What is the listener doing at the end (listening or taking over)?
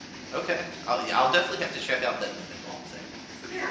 taking over